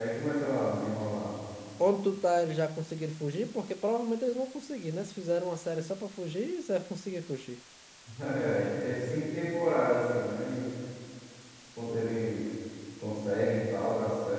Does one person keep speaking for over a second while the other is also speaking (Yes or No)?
No